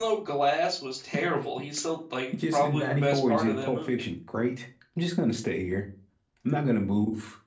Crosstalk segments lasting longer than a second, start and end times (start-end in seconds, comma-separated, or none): 2.3-4.0